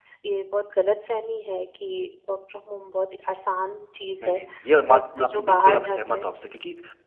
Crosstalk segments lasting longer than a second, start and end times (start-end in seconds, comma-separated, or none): 4.9-6.3